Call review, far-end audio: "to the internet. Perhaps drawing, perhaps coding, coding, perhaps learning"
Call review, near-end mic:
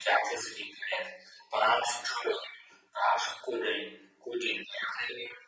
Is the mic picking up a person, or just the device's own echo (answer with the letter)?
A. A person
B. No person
B